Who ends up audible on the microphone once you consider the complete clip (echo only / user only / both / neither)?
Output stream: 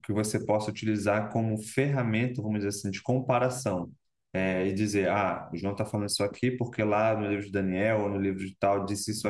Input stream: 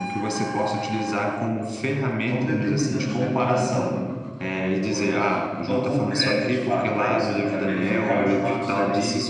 both